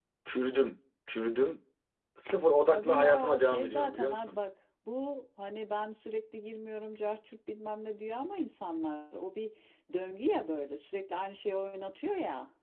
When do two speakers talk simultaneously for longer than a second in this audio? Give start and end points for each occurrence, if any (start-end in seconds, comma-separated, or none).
2.7-4.4